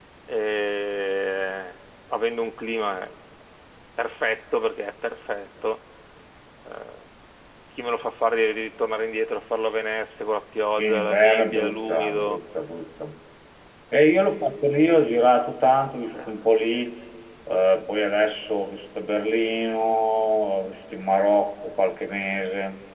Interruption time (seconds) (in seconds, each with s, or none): 10.8 s